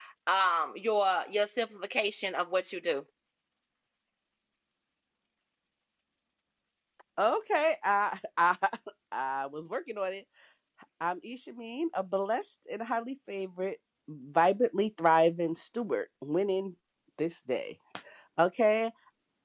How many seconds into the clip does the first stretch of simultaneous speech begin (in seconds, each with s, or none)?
none